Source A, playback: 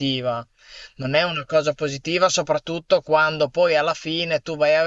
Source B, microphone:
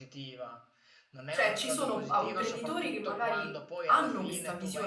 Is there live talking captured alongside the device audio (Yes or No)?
Yes